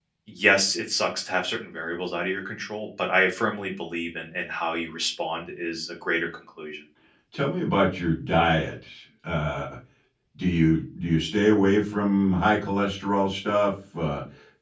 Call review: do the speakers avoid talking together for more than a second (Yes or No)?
Yes